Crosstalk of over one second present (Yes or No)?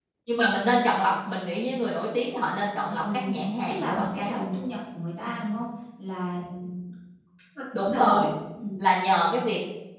Yes